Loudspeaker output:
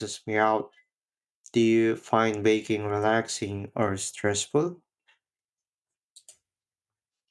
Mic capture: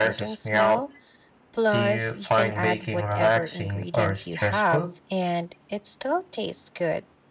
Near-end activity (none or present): present